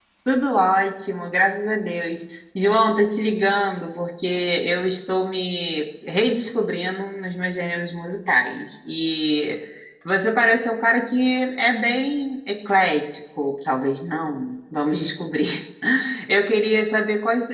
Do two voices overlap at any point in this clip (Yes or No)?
No